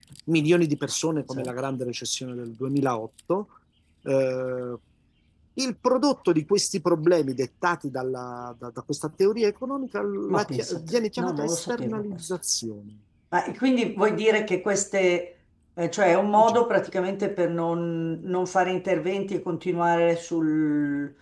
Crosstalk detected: Yes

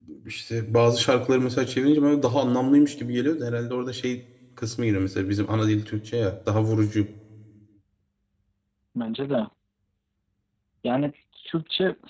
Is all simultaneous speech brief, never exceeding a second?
Yes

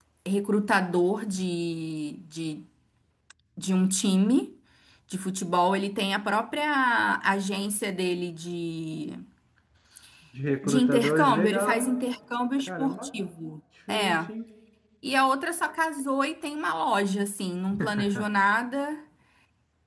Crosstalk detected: Yes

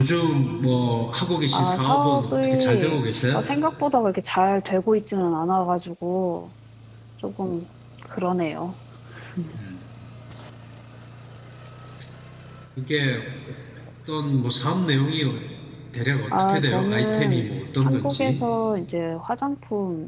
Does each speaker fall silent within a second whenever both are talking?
No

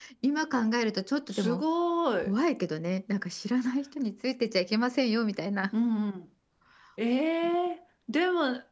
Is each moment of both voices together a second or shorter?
Yes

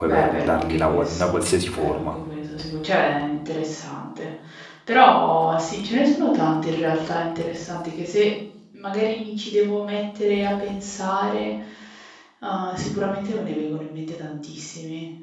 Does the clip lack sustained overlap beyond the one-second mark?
No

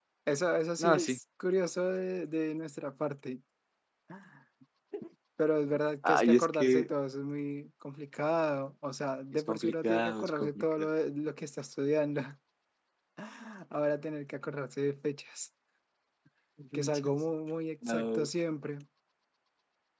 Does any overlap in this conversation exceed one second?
Yes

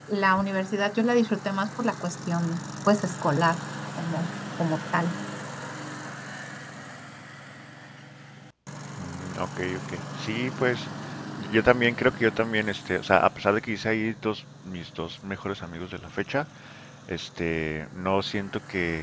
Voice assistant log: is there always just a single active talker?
Yes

